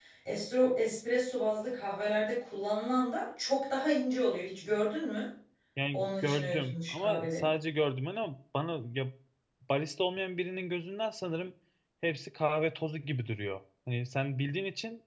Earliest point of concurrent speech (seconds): 5.9 s

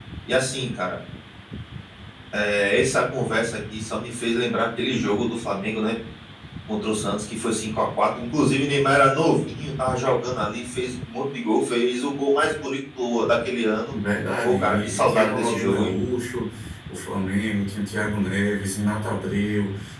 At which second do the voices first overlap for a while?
14.4 s

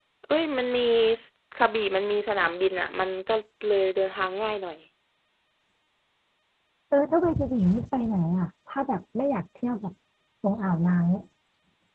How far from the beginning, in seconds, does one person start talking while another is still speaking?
none

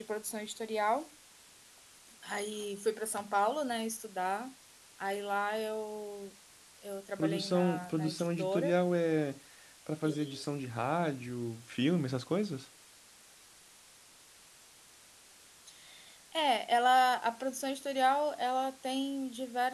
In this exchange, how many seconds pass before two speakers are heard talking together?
7.2 s

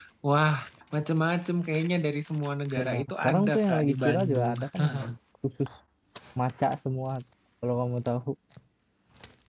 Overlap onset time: 2.8 s

